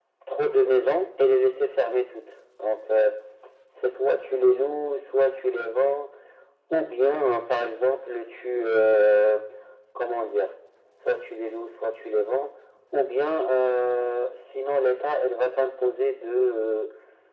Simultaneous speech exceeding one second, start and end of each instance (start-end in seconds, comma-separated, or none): none